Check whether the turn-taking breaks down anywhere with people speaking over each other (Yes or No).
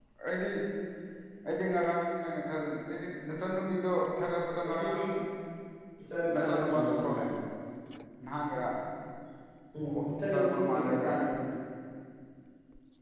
Yes